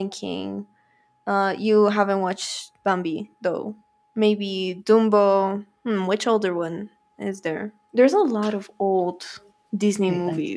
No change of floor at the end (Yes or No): No